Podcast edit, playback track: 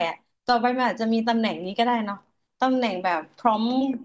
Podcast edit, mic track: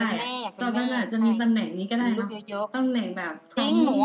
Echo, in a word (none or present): present